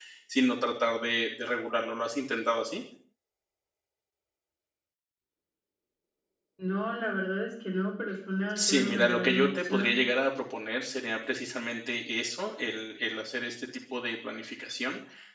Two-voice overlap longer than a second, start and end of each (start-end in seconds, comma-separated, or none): 8.6-10.0